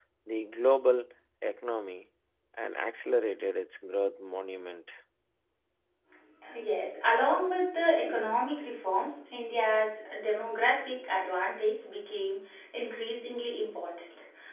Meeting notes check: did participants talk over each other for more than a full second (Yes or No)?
No